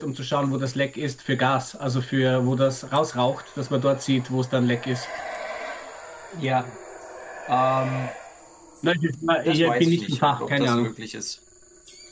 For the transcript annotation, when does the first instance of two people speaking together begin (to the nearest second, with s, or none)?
9 s